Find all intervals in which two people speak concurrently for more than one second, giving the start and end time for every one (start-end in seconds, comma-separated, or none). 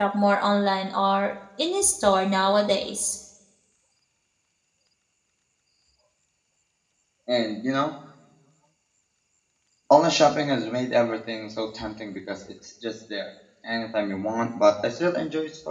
none